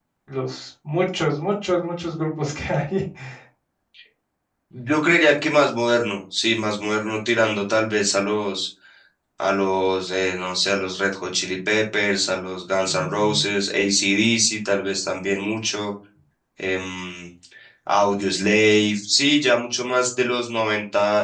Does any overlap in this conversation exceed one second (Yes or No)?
No